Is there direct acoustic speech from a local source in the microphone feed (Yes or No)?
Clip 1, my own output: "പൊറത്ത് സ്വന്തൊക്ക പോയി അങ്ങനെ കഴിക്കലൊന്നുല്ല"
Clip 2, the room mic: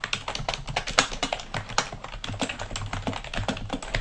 No